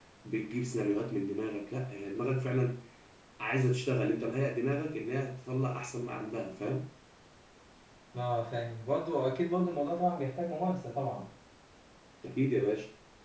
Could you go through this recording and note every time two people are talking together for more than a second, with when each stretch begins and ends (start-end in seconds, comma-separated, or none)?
none